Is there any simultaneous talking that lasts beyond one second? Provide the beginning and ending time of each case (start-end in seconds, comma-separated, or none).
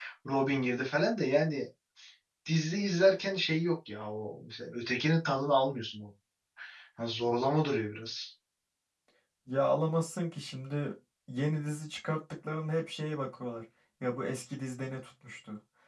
none